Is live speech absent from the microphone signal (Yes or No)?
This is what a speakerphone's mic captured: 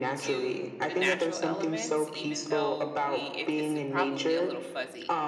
No